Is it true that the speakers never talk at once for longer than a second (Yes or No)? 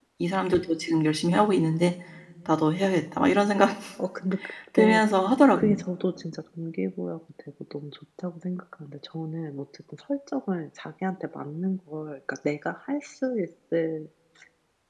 Yes